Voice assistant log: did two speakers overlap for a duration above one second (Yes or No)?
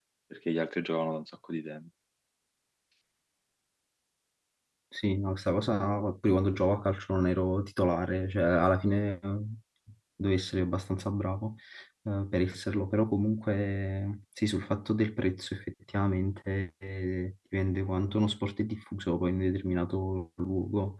No